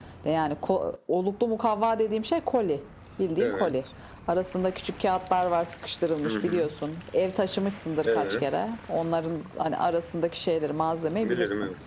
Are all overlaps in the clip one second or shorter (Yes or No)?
Yes